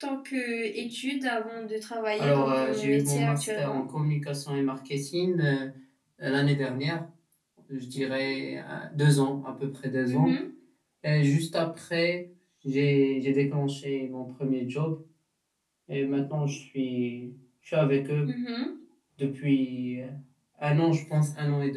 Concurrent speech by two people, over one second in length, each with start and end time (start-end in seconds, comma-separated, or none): 2.2-3.8